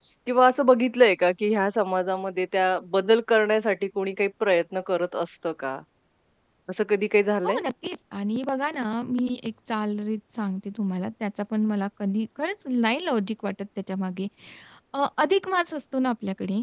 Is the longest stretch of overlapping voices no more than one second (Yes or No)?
Yes